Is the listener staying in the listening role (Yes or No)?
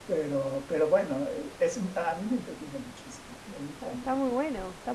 No